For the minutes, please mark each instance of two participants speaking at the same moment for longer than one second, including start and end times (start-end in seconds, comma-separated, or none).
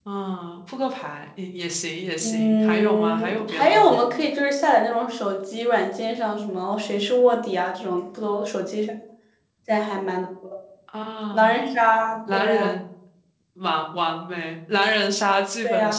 2.2-4.0